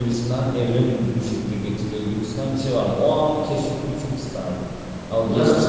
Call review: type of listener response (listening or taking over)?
listening